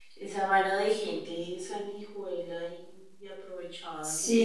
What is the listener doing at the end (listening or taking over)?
taking over